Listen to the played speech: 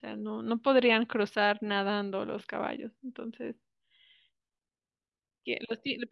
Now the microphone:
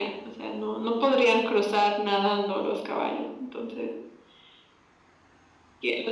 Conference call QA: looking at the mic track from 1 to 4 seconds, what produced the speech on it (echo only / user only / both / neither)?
echo only